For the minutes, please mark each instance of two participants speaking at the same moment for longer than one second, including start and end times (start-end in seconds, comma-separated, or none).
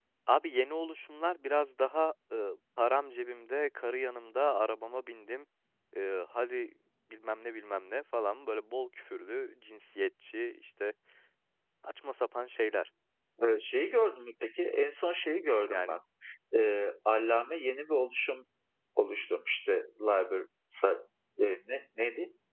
none